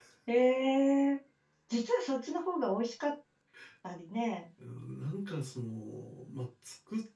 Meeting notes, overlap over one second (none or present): none